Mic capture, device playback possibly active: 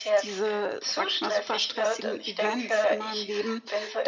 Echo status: present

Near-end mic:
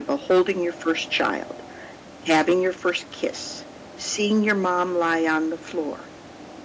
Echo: present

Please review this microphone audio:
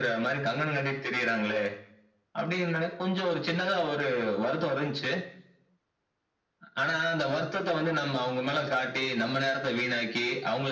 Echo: present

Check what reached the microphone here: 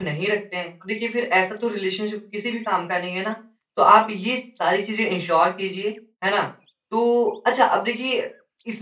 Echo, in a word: none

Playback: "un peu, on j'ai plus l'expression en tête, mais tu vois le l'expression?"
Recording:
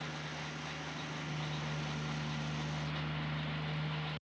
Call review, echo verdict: none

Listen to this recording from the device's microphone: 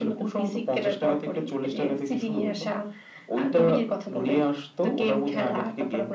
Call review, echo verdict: present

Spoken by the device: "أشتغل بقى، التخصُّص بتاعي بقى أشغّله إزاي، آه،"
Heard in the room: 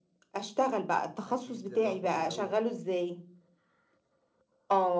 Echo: present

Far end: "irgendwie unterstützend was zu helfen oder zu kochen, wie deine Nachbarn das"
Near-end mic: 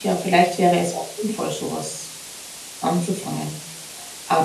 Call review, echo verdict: none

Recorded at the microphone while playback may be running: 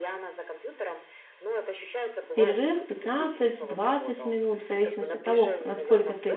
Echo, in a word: present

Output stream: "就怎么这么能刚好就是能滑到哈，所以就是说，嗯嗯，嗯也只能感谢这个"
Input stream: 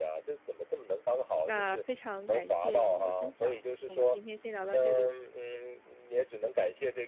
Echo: present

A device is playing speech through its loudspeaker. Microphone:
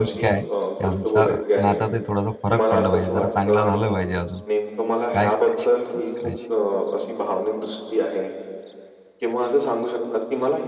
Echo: present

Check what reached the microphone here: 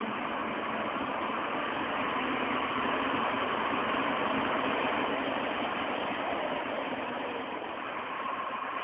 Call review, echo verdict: none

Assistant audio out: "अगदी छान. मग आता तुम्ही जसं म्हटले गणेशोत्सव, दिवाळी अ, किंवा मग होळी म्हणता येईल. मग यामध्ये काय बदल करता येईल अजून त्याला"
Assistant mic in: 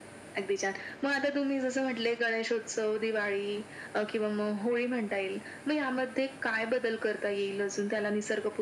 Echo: present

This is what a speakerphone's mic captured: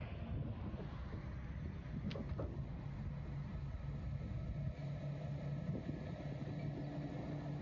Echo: none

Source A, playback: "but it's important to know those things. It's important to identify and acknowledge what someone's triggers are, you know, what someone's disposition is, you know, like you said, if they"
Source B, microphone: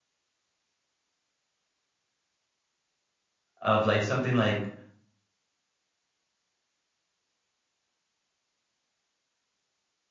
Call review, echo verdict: none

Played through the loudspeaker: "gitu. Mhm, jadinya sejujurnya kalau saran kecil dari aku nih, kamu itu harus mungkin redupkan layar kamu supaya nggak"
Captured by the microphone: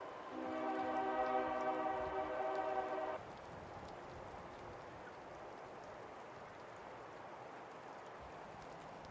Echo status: none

